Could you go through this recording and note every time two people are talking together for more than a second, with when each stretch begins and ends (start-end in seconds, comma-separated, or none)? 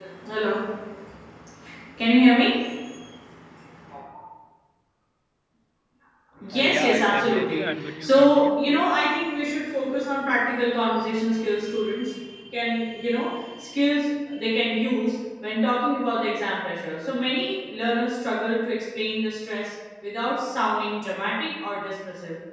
6.5-9.0